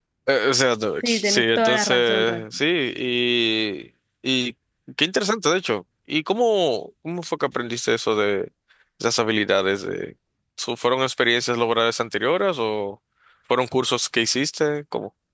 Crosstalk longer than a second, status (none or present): present